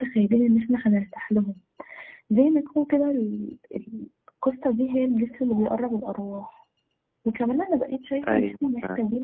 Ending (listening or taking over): listening